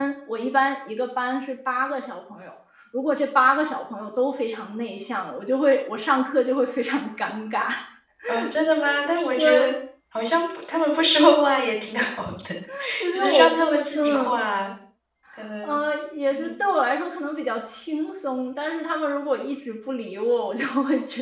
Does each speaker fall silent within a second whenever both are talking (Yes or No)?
No